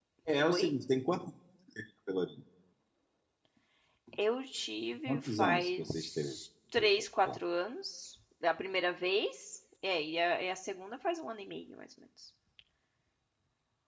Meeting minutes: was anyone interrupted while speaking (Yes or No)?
Yes